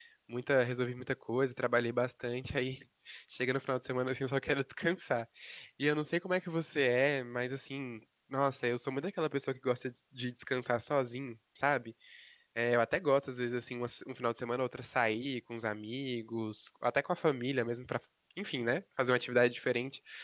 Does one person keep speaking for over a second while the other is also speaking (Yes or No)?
No